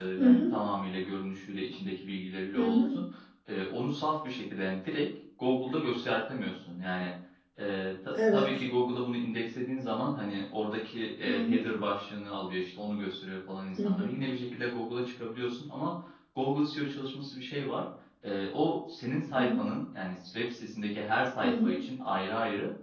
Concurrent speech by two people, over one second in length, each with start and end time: none

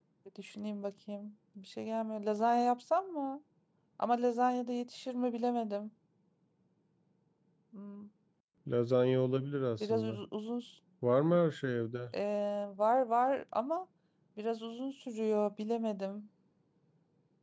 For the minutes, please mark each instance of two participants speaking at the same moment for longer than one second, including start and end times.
none

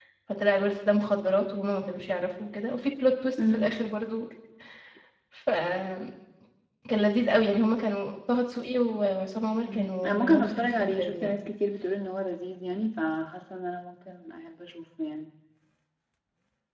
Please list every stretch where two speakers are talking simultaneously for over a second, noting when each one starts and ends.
9.6-11.4

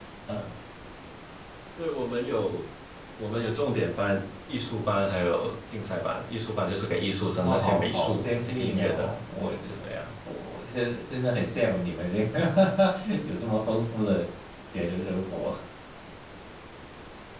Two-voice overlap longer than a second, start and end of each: 7.4-9.0

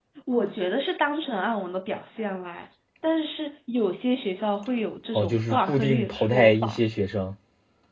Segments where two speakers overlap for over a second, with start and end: 5.1-6.8

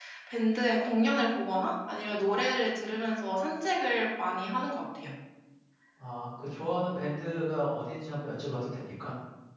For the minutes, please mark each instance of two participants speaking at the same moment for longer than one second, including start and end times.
none

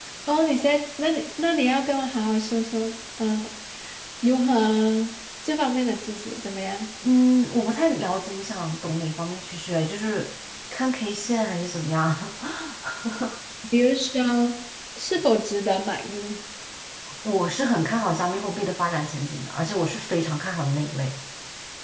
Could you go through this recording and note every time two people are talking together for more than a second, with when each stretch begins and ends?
none

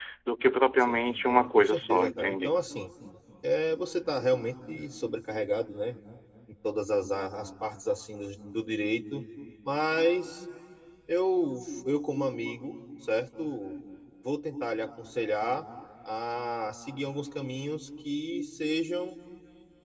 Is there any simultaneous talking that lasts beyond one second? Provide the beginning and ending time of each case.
0.8-2.5

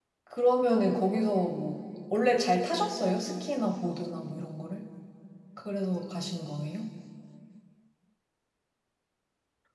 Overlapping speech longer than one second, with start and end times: none

